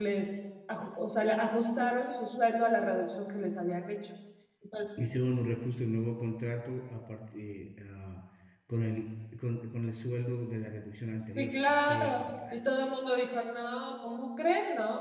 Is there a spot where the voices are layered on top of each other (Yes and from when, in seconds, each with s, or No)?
Yes, from 11.4 s